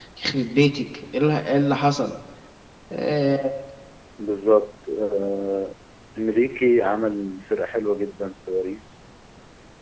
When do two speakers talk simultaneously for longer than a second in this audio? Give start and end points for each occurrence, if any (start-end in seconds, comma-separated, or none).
none